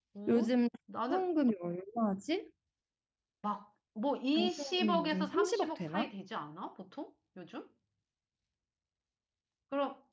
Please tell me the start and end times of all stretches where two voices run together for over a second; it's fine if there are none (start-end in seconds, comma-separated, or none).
4.3-6.1